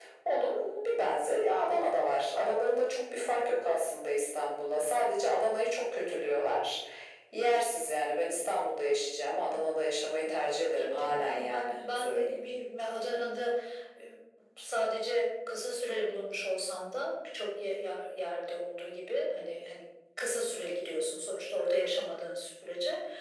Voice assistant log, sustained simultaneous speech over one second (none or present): present